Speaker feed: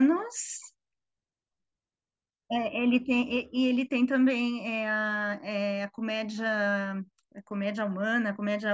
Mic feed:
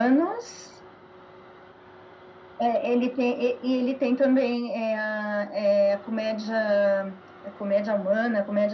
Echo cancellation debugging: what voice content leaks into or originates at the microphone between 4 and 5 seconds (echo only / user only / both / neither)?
echo only